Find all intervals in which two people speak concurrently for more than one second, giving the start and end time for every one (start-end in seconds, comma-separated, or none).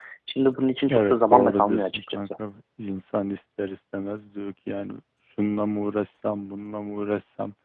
0.9-2.3